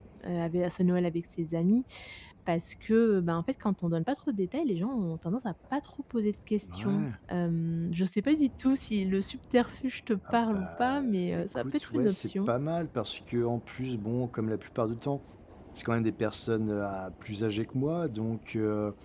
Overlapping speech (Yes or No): Yes